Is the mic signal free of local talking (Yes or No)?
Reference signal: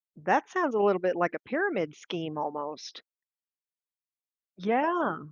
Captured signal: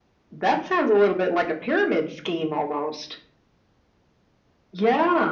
Yes